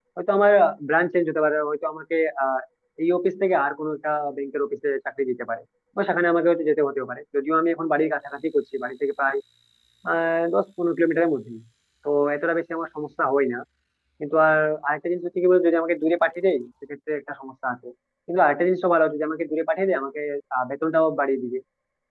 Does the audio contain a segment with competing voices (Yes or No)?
No